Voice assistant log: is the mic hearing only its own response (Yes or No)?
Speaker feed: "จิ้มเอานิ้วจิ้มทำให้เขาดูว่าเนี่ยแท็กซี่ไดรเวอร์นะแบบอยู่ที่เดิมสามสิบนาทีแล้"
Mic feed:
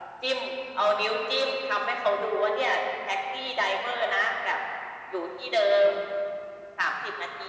Yes